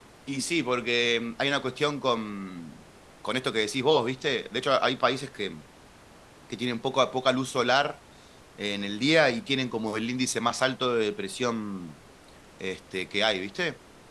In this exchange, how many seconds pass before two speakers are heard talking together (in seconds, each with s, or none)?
none